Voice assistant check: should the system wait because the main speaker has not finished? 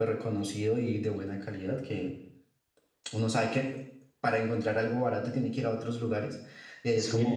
No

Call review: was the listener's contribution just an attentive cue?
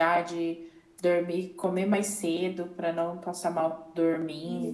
No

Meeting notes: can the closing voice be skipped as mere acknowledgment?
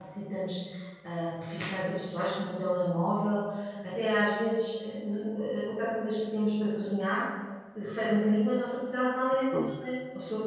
Yes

